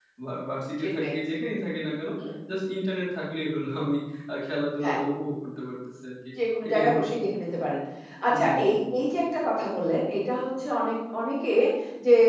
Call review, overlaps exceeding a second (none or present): none